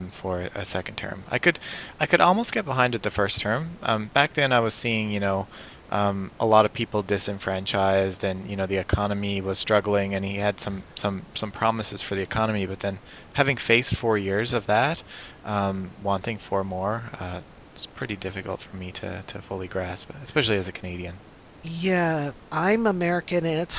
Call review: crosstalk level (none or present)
none